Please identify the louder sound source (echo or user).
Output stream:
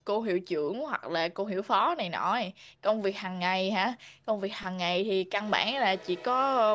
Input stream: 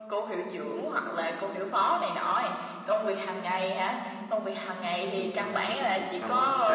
echo